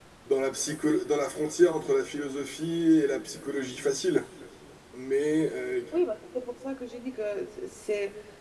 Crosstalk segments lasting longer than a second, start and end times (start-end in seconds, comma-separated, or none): none